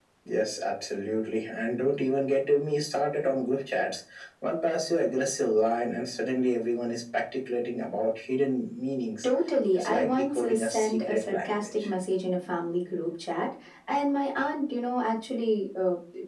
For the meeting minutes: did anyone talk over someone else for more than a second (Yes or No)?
Yes